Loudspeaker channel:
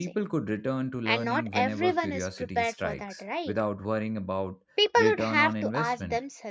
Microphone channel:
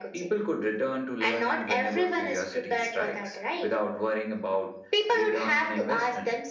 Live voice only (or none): none